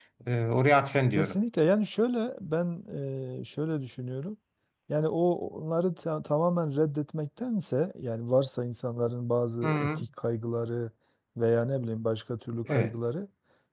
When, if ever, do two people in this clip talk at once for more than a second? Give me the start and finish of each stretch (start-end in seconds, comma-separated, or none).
none